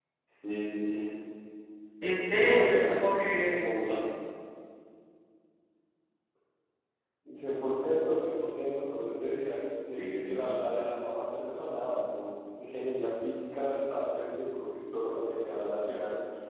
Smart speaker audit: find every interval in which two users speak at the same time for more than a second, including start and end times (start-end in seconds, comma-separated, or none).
2.4-3.6